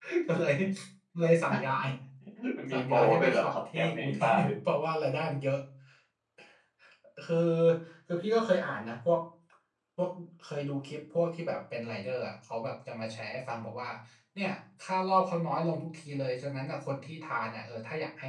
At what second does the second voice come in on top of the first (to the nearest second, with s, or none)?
3 s